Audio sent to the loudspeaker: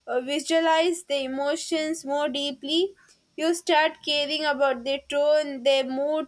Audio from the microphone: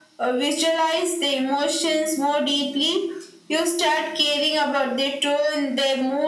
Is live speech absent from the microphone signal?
Yes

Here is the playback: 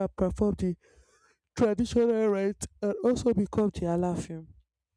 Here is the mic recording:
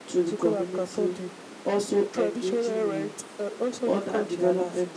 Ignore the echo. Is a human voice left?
Yes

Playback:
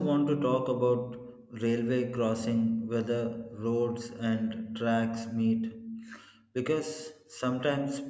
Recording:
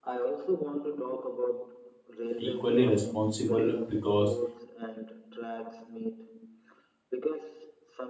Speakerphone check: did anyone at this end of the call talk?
Yes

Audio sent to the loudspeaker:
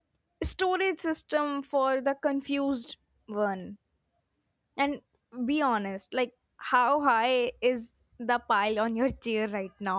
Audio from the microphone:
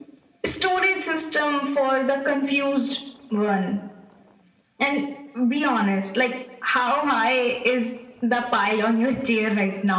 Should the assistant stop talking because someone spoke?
No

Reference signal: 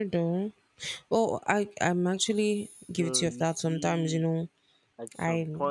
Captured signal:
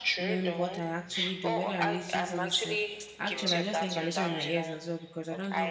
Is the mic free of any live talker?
No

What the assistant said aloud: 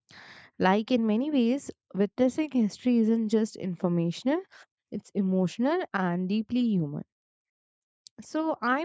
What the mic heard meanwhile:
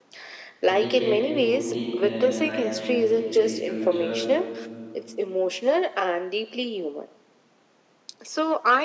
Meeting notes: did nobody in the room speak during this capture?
No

